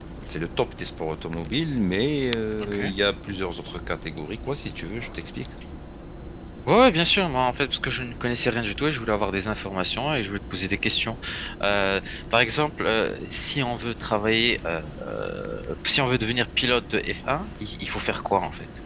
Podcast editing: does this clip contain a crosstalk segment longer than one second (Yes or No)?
No